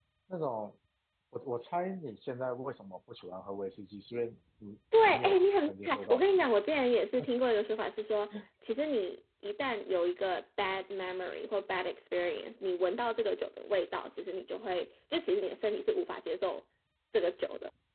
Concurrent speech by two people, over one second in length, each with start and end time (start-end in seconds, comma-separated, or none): 5.1-6.5